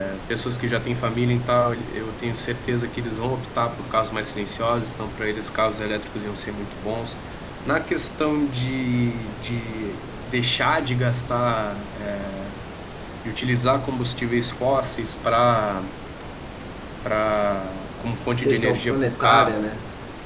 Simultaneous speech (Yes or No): Yes